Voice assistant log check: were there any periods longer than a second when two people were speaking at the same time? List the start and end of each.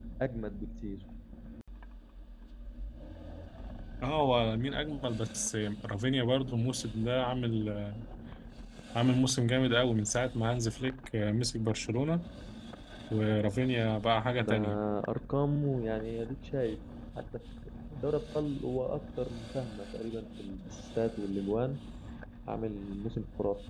none

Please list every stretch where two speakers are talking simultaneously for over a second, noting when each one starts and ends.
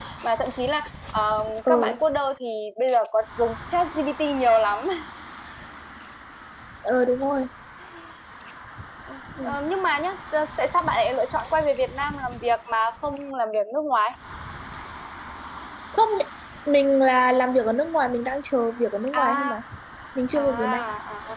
none

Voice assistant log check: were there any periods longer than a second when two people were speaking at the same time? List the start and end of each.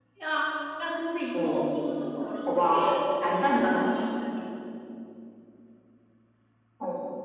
2.5-3.8

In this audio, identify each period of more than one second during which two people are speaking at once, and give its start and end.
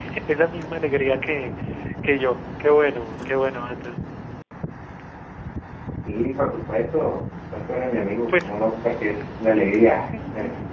none

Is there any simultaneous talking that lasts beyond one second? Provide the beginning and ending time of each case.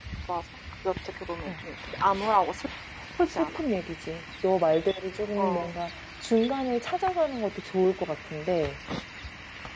none

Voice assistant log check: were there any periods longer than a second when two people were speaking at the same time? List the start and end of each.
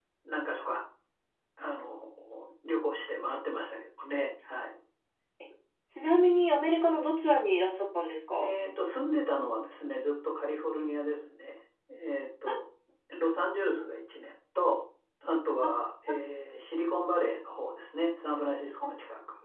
none

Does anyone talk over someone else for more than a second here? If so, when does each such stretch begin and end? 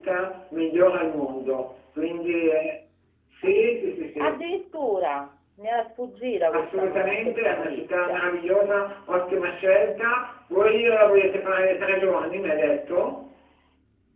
6.5-8.3

